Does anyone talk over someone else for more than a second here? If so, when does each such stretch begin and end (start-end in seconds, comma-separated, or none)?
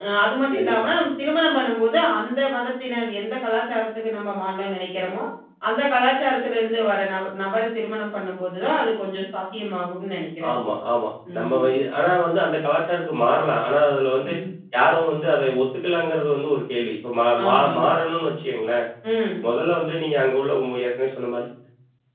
none